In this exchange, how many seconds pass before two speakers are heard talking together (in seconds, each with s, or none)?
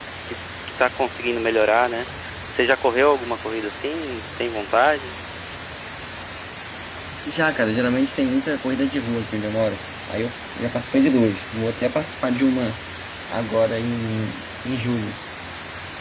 none